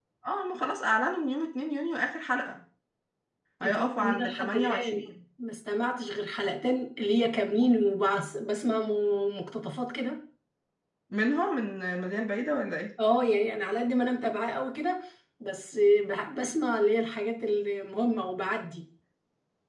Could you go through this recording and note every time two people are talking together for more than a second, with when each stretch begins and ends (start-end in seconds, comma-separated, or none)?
3.6-5.1